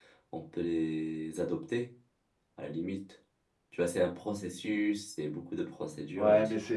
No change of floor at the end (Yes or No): No